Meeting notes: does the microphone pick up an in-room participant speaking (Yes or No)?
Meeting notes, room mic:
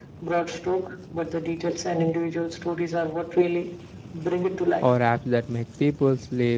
Yes